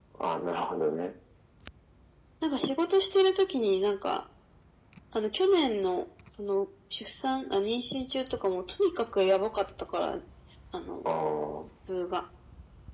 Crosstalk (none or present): none